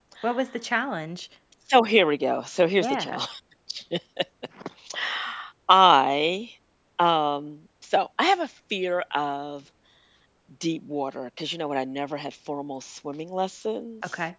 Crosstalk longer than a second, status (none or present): none